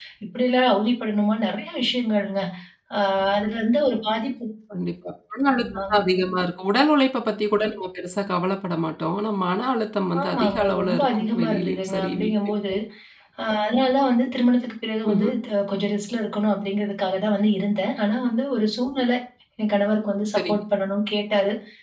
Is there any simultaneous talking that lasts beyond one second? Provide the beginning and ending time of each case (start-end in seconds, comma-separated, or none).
10.2-12.3